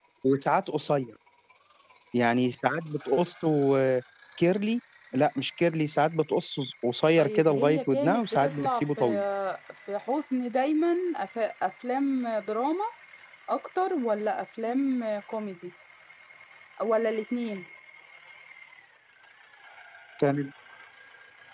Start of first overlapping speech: 7.2 s

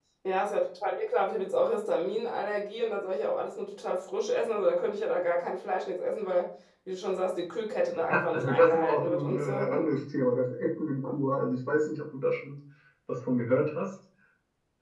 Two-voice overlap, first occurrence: 7.9 s

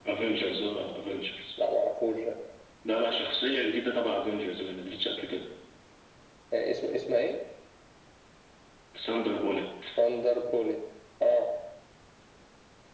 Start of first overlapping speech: none

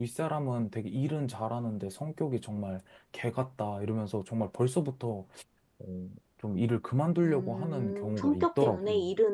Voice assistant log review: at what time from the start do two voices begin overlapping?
7.2 s

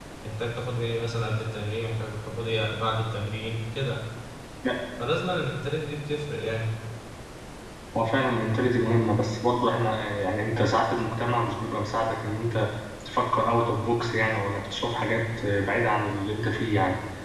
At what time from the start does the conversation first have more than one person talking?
none

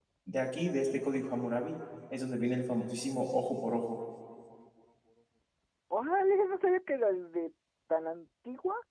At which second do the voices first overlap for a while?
none

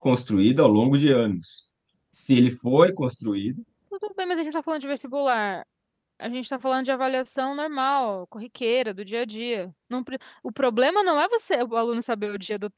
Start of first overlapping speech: none

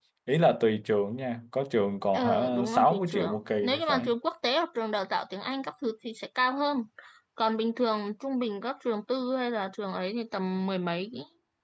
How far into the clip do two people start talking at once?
2.1 s

